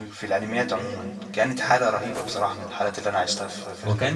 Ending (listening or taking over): taking over